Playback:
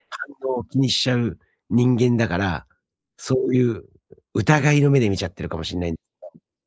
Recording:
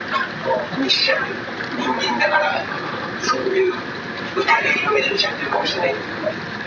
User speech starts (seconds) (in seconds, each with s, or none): none